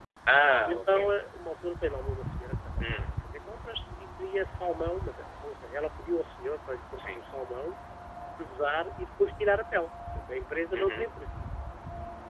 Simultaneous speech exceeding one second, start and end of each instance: none

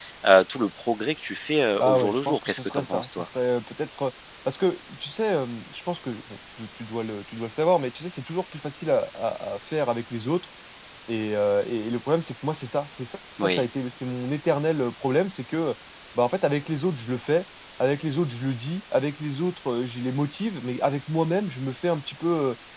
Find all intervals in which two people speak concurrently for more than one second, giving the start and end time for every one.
1.8-3.1

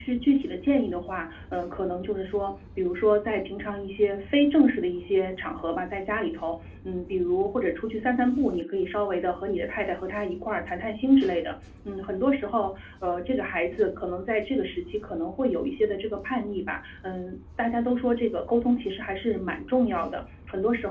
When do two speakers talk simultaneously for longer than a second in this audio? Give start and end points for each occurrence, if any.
none

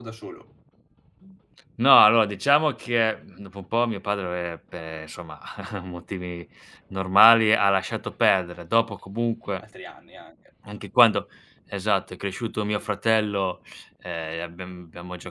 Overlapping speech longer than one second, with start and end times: none

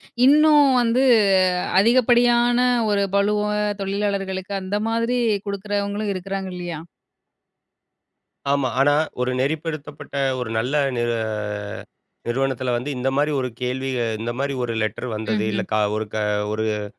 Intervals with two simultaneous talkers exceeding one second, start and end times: none

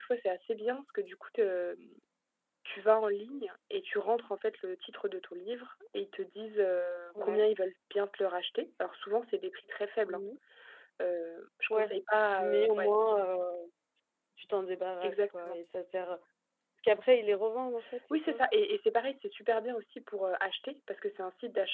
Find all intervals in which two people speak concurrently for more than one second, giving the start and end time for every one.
none

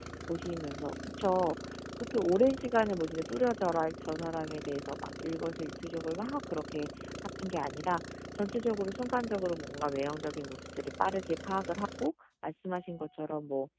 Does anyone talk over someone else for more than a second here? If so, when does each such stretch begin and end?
none

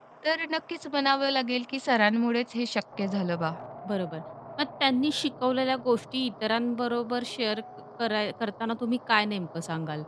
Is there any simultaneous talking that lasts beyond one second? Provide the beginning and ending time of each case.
none

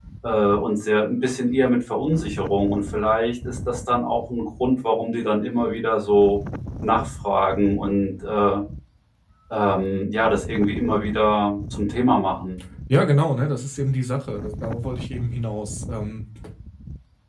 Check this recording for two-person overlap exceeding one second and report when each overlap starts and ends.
none

